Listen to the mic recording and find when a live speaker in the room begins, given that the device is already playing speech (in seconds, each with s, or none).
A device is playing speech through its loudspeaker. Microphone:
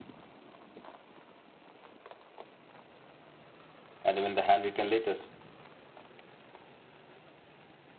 4.0 s